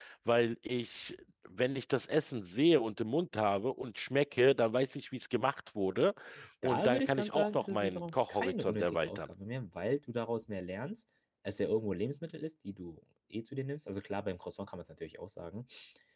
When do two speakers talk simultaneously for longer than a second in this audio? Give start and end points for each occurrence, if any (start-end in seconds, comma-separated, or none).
6.6-9.3